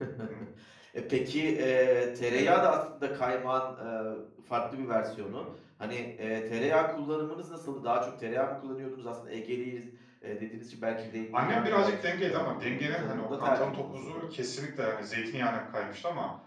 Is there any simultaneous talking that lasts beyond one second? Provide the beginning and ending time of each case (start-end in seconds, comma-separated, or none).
11.4-14.2